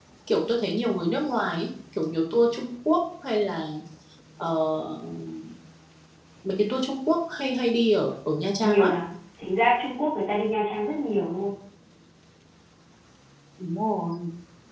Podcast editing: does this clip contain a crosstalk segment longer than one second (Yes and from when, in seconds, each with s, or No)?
No